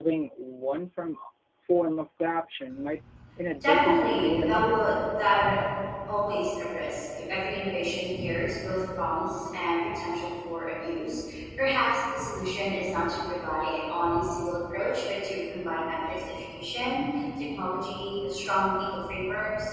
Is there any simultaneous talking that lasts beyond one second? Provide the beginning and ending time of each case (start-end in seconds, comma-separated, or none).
3.6-4.8